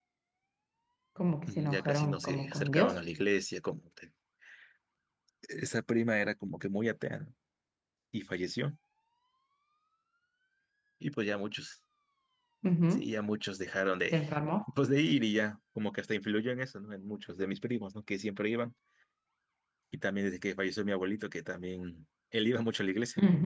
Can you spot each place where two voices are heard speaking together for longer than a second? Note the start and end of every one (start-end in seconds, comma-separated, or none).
1.5-3.0